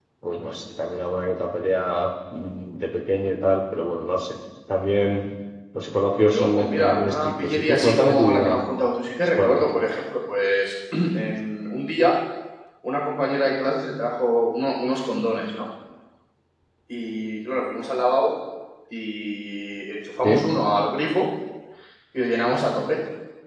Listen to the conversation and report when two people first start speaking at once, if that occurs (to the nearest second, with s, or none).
6 s